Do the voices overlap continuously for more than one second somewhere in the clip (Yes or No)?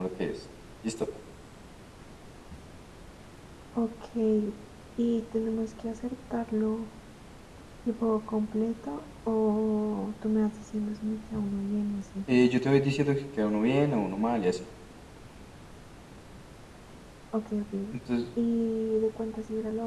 No